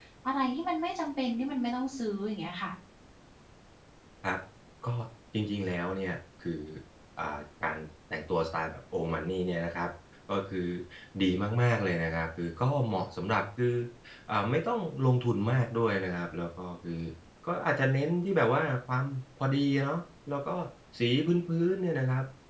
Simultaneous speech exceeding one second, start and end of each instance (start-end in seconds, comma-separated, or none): none